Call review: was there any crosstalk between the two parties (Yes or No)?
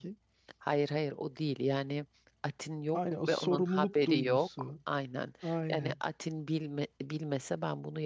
Yes